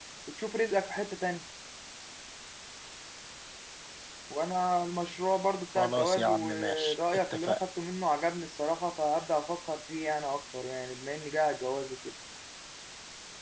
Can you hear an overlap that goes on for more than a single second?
Yes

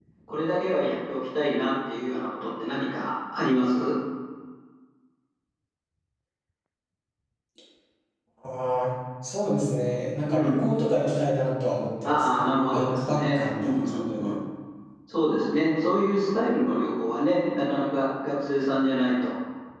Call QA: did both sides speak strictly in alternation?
No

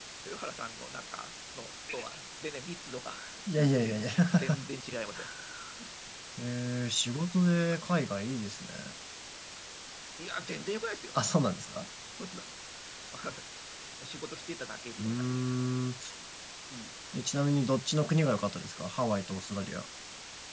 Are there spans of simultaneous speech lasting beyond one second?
No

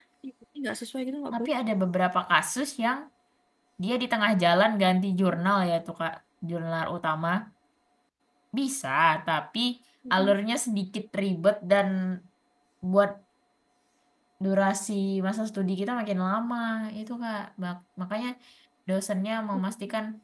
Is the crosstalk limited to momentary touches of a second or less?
Yes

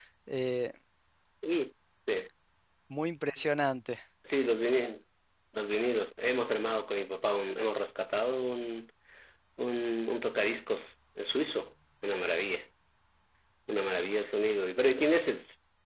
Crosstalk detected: No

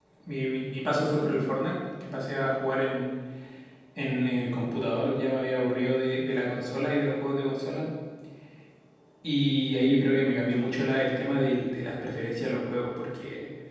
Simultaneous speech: No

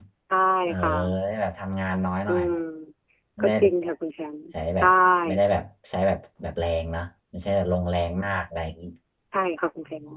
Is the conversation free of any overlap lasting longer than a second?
Yes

